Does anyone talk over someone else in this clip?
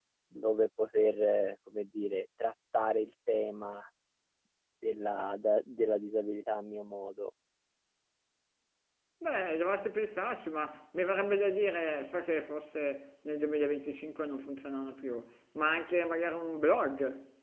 No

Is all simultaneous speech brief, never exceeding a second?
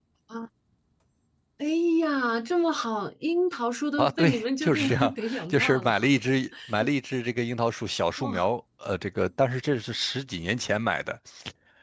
No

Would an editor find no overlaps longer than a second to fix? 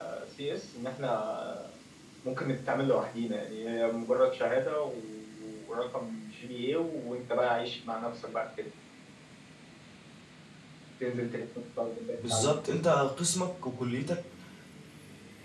Yes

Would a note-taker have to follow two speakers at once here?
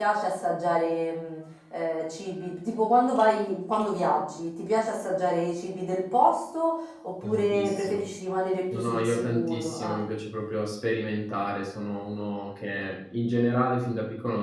Yes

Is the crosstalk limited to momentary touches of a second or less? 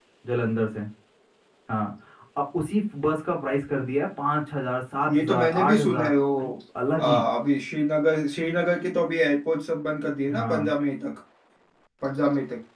No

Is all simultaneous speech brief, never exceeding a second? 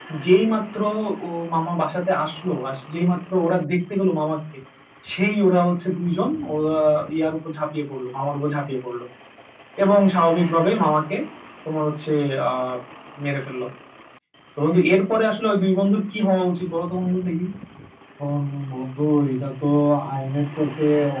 Yes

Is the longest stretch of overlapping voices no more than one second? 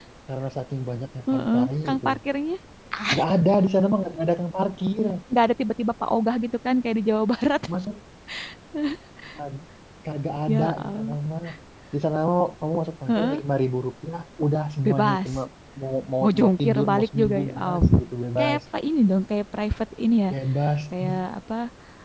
No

